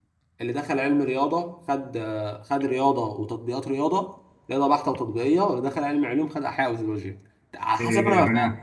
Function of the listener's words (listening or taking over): taking over